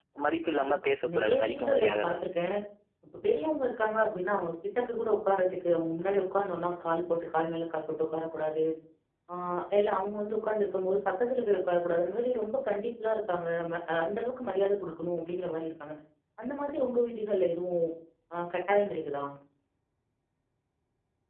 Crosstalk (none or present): present